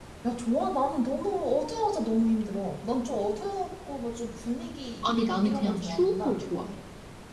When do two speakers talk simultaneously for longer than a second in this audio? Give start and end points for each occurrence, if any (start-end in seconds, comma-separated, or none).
5.0-6.4